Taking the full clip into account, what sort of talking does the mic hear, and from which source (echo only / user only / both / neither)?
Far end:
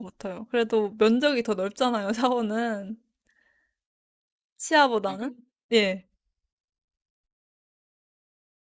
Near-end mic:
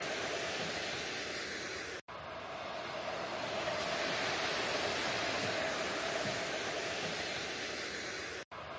neither